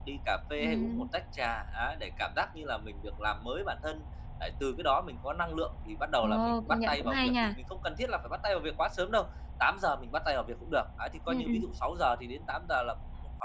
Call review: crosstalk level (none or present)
present